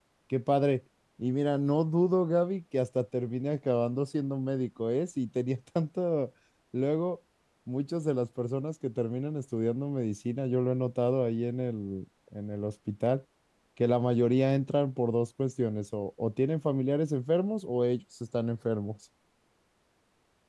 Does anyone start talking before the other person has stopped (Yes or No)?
No